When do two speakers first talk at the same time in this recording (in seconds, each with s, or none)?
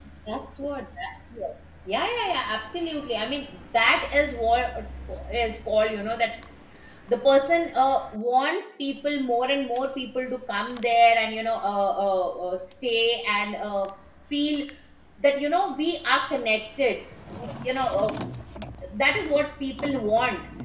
none